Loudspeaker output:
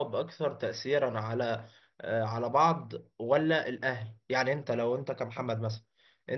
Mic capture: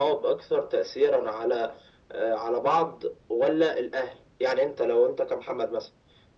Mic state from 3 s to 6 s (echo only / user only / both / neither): echo only